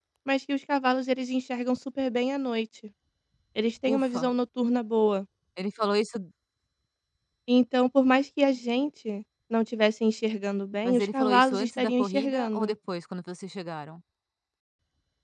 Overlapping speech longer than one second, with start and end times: 10.8-12.7

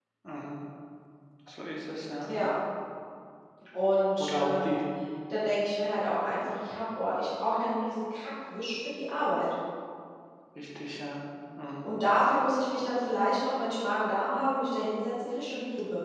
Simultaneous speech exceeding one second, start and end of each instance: none

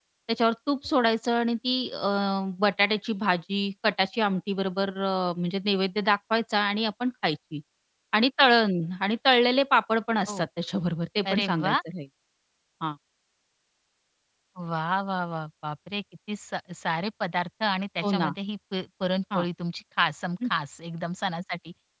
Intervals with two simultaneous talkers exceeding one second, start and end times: none

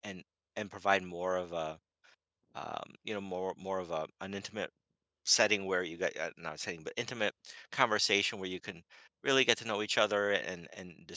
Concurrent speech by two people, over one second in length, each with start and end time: none

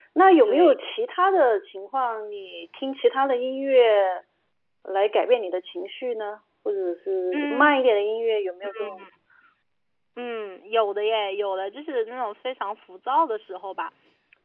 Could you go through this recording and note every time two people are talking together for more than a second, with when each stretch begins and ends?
none

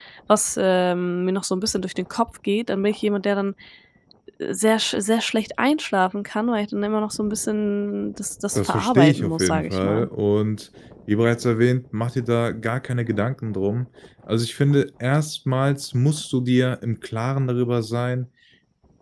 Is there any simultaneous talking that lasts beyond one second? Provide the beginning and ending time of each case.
8.6-10.1

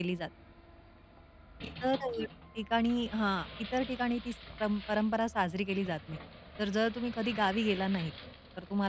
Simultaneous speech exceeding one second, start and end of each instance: none

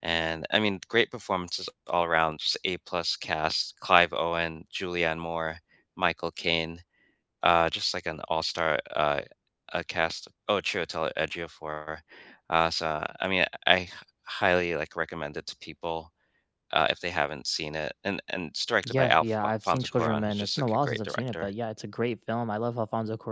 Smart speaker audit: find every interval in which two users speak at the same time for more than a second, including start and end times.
18.9-21.5

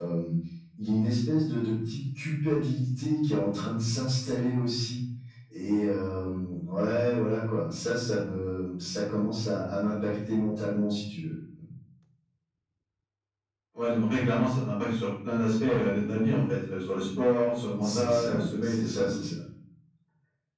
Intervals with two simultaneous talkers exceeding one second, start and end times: 17.8-19.2

